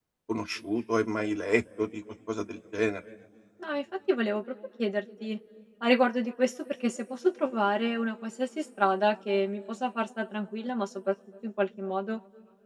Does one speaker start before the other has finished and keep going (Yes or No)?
No